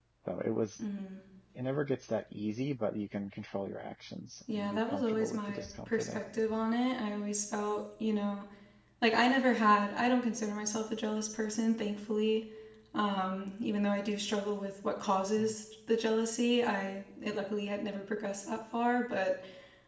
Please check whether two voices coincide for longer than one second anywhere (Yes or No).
Yes